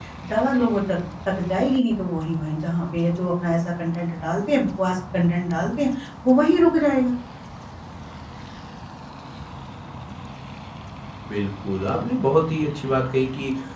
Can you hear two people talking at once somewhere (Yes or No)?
No